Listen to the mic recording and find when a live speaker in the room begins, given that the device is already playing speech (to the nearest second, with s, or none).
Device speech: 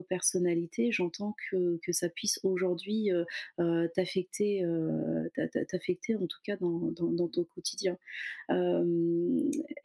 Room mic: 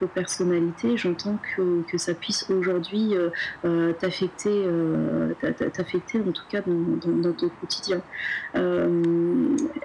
none